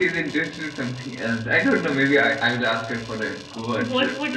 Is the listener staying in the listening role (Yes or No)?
No